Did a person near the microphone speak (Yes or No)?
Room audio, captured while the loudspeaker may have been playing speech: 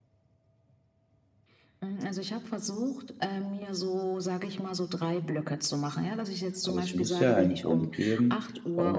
Yes